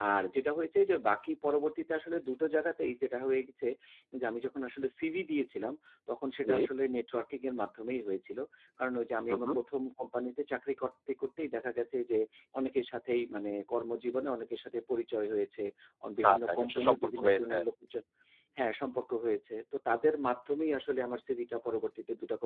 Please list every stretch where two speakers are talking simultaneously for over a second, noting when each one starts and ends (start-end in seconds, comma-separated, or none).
16.2-17.5